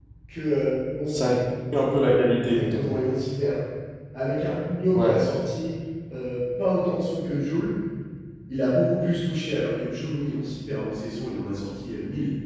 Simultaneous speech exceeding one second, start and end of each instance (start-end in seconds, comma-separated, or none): none